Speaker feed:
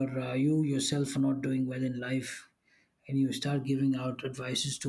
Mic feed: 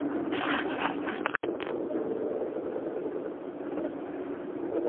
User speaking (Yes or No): No